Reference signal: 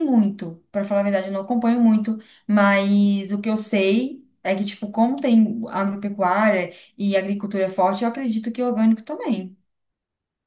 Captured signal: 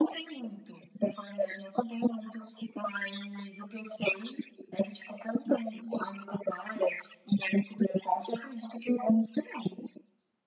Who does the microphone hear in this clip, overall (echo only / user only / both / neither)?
echo only